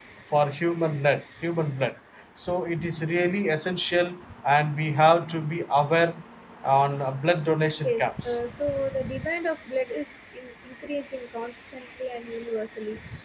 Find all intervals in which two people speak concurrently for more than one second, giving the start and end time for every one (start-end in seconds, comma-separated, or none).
none